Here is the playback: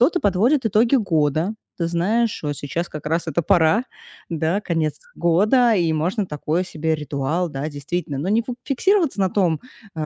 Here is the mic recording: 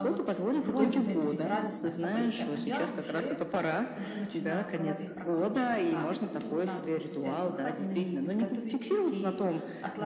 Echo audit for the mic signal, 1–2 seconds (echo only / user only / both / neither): both